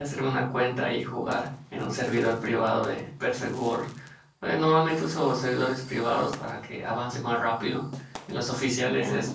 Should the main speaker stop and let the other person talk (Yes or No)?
No